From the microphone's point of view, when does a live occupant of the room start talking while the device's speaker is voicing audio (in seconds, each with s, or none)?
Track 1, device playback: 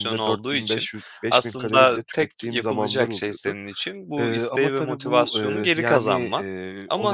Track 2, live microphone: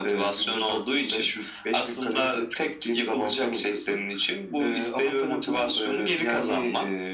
none